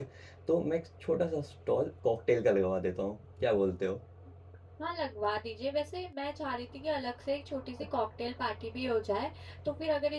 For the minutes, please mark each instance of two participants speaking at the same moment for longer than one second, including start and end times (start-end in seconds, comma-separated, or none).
none